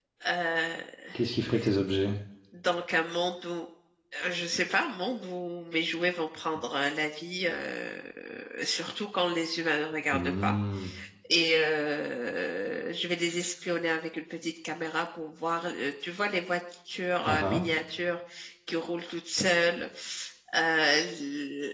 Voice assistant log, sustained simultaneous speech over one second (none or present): none